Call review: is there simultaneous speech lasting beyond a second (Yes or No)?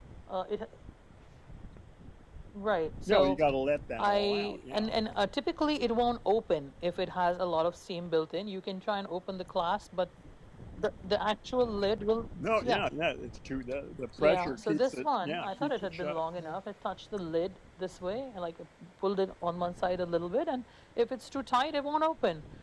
Yes